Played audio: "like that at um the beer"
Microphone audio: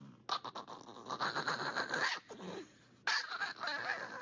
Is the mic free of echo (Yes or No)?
Yes